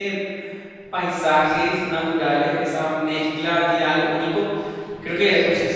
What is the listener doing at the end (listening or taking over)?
listening